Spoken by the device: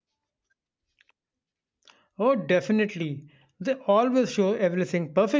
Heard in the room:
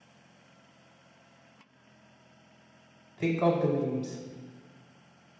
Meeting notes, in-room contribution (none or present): present